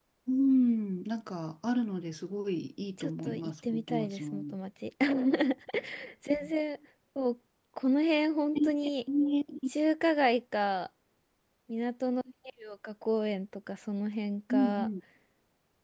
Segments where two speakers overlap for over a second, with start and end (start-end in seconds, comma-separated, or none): 3.0-4.5